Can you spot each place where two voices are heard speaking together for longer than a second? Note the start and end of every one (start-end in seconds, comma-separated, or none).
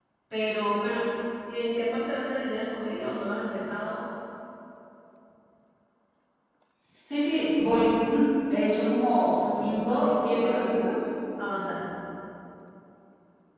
9.3-10.7